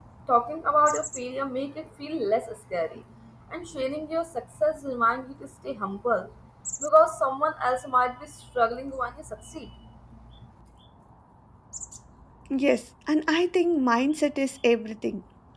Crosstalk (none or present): none